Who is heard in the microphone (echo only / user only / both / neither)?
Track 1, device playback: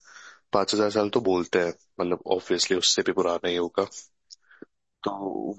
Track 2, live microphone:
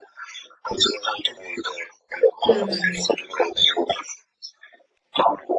both